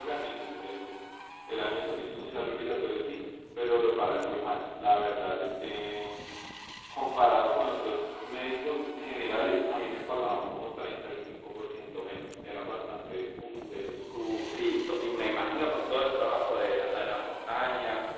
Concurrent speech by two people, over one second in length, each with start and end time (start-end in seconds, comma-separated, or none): none